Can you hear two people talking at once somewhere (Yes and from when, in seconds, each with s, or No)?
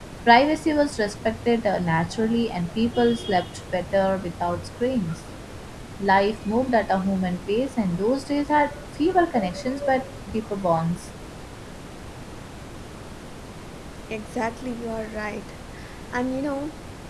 No